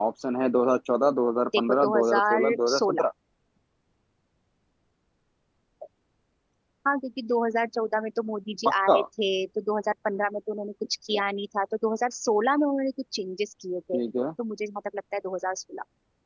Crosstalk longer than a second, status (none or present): present